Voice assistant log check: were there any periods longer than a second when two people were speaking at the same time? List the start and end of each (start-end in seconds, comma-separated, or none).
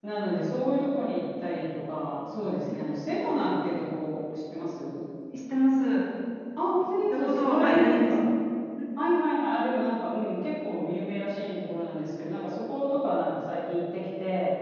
6.9-8.2